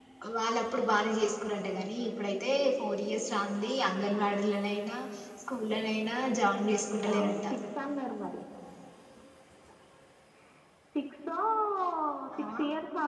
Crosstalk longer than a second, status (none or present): none